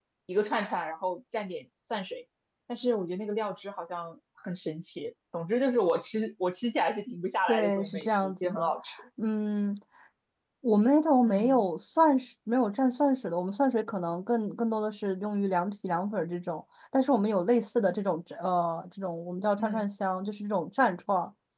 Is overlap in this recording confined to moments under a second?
No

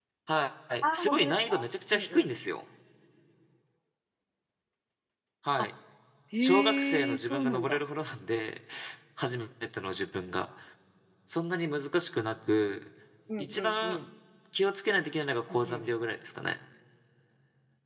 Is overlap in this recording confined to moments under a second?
No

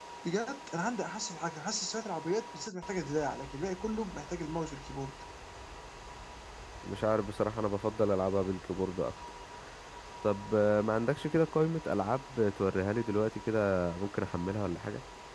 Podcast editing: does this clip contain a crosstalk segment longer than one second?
No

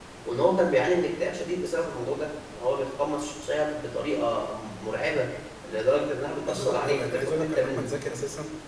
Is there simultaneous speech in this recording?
Yes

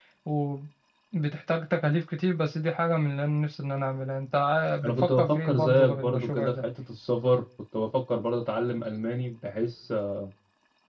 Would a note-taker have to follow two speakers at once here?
Yes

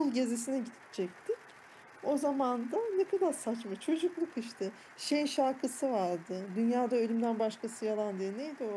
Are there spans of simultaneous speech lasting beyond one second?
No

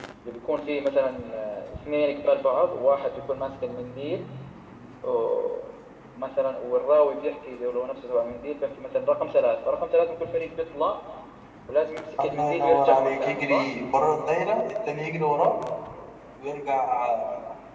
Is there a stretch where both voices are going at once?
Yes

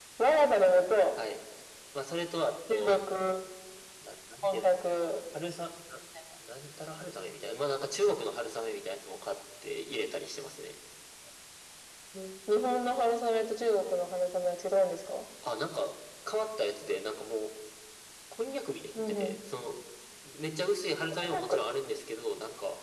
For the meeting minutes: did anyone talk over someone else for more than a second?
No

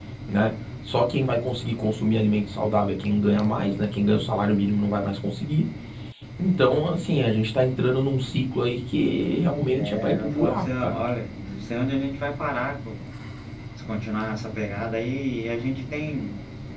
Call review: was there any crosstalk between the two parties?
Yes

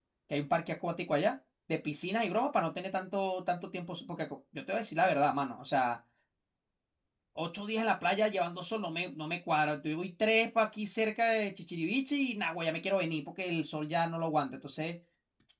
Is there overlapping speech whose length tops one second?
No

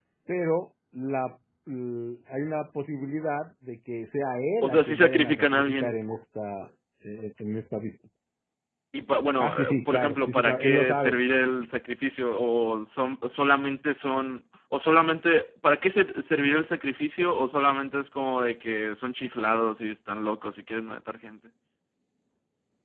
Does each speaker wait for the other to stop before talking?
No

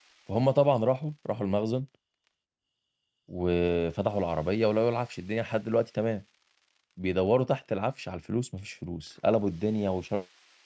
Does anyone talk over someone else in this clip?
No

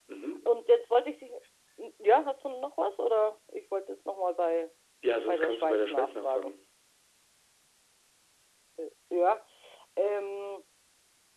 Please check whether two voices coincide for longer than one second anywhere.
Yes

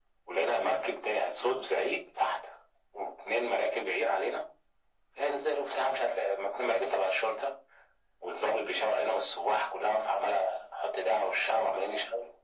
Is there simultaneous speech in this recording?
No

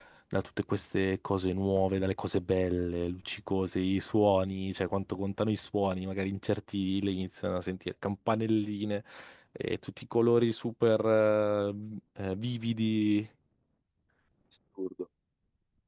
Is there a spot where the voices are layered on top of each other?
No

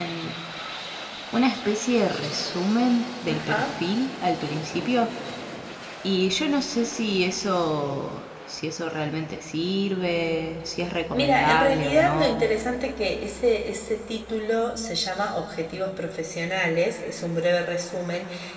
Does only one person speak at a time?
No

